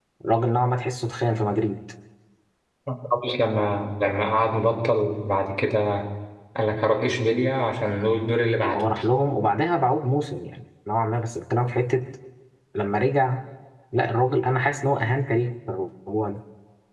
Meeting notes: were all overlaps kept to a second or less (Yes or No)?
Yes